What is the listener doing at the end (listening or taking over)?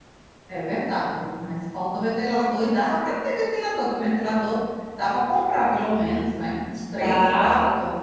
taking over